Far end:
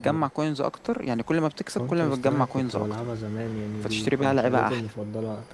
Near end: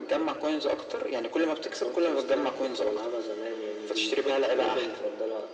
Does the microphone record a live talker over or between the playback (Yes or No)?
No